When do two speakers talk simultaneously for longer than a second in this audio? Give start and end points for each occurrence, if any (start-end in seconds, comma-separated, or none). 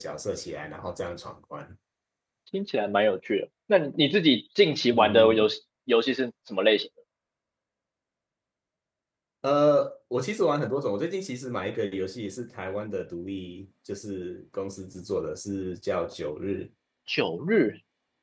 none